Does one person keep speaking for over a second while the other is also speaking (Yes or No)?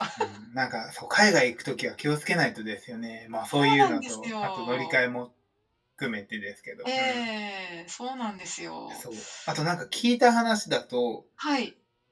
Yes